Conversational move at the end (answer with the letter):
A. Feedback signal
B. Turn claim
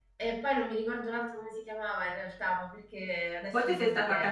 B